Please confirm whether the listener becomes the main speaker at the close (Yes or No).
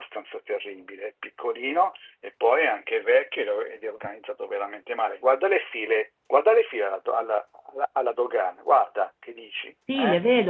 Yes